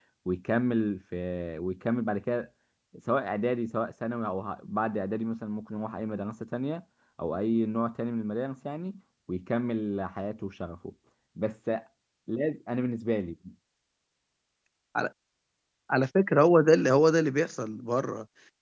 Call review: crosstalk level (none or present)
none